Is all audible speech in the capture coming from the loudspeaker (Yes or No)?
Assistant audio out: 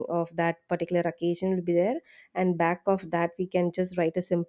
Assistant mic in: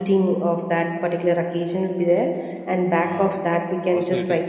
No